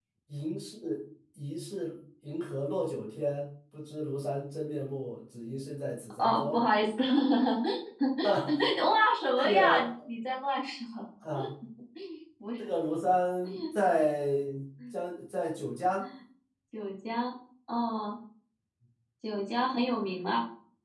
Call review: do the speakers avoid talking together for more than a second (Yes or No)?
Yes